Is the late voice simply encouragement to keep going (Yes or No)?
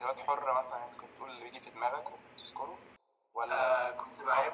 No